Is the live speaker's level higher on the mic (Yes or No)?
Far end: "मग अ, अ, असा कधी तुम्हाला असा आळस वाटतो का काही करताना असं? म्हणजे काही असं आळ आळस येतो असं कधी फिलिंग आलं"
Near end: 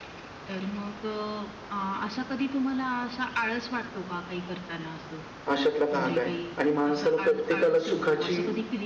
Yes